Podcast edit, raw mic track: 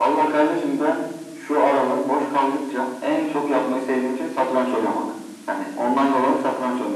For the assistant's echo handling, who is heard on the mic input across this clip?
echo only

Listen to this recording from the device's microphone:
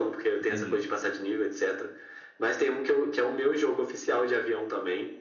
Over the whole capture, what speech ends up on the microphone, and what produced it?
both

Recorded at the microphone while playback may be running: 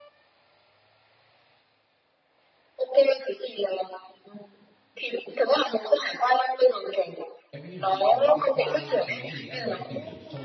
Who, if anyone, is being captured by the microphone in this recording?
both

